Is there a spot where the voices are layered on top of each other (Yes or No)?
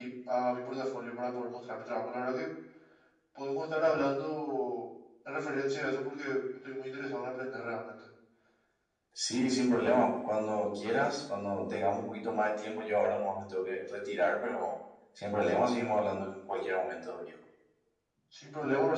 No